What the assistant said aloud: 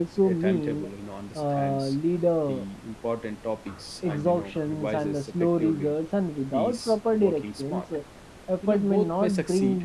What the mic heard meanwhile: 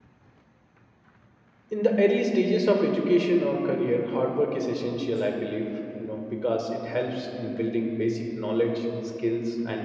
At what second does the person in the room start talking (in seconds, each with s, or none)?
1.7 s